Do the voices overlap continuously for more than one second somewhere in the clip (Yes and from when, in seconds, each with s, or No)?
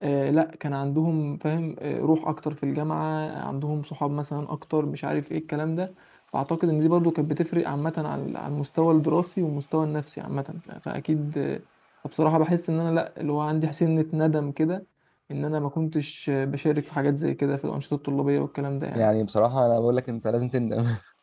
No